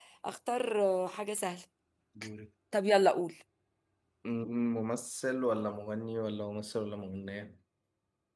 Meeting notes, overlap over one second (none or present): none